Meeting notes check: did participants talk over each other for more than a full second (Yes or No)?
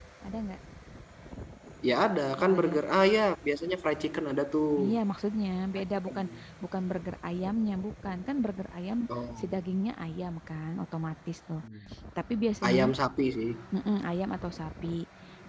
No